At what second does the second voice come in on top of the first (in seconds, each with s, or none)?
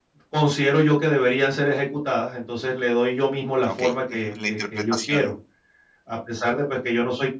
3.6 s